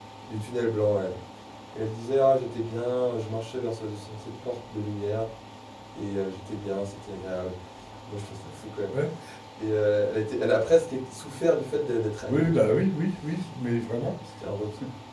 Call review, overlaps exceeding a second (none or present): none